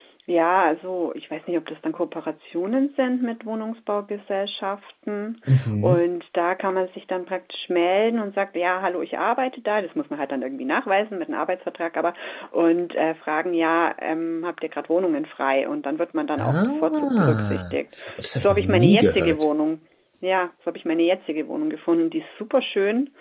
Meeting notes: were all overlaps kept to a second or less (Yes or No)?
No